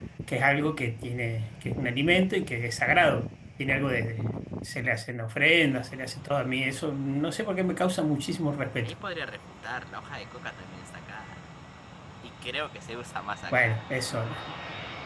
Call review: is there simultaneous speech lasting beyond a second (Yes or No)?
No